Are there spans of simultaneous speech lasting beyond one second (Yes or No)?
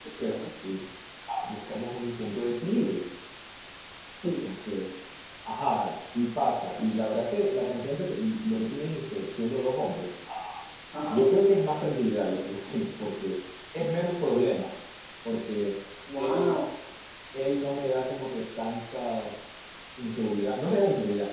No